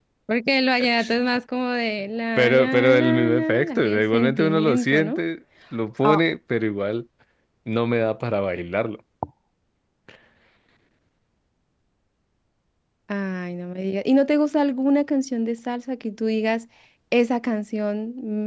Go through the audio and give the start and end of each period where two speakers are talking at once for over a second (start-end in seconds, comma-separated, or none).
2.4-5.2